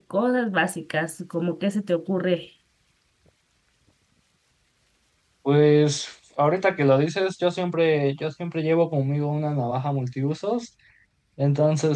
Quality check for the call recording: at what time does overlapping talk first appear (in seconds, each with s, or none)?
none